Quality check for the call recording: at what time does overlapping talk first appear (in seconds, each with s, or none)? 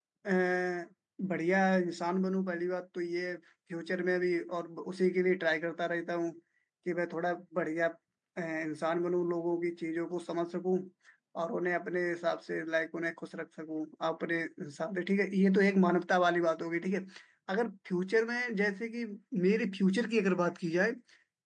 none